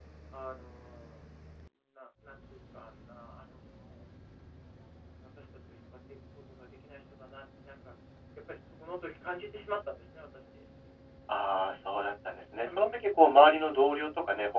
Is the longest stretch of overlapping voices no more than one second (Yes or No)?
Yes